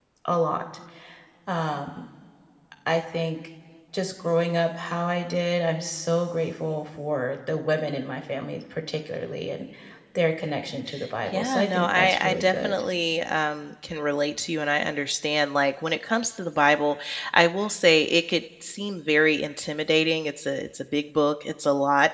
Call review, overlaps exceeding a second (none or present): present